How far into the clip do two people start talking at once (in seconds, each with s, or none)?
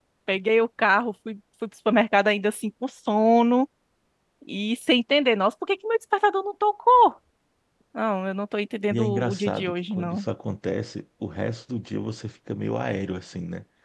8.9 s